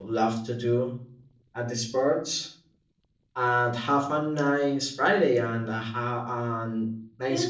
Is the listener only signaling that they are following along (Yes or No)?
No